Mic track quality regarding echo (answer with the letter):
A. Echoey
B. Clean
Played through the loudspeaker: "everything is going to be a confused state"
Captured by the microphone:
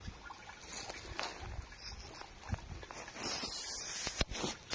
B